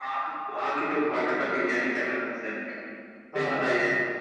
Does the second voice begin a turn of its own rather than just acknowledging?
No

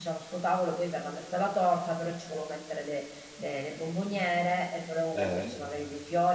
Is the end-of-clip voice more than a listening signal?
No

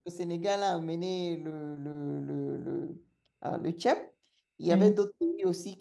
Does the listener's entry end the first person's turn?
No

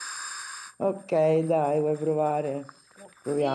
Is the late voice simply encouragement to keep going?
No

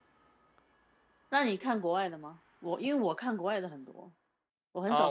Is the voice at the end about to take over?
Yes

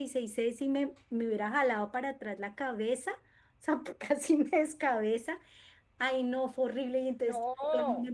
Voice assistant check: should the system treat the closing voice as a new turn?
No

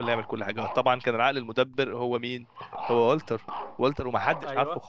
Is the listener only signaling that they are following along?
Yes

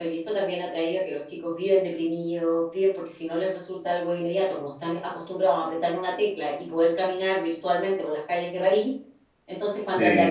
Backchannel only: Yes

